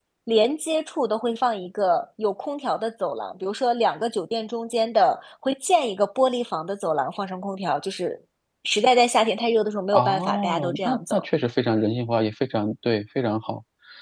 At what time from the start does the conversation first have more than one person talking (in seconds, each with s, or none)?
9.9 s